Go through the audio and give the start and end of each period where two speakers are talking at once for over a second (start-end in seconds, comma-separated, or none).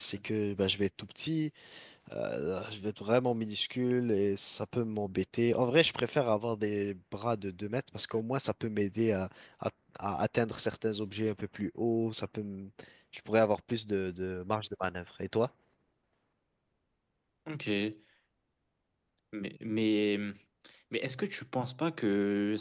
none